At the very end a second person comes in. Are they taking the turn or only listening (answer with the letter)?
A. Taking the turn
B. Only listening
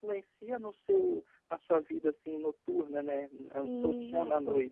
A